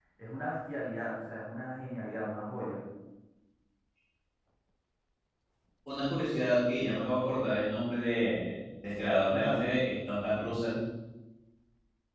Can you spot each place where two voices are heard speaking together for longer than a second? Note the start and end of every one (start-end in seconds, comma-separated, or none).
none